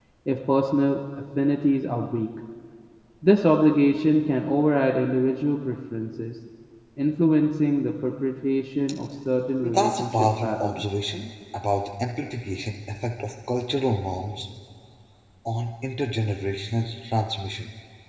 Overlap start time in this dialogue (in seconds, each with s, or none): 9.6 s